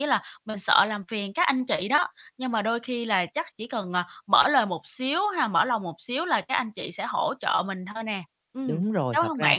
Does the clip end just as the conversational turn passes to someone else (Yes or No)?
Yes